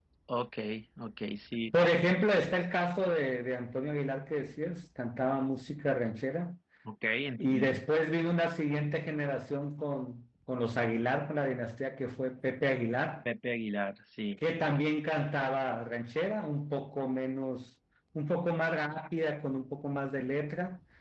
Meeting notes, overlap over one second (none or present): none